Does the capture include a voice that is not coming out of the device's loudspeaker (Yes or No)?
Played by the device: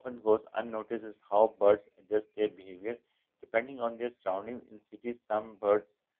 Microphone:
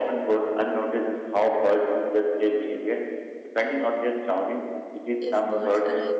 Yes